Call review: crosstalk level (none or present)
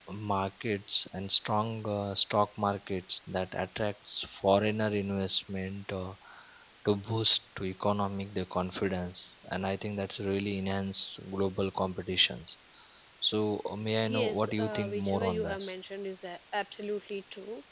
present